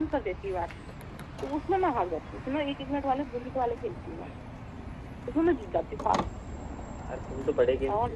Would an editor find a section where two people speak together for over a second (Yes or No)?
No